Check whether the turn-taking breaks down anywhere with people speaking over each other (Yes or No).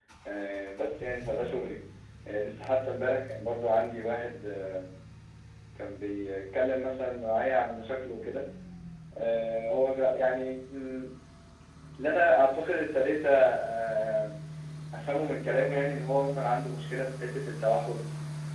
No